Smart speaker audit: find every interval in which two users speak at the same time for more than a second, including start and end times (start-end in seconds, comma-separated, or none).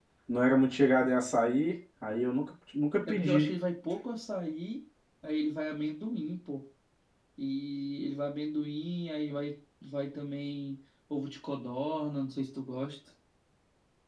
none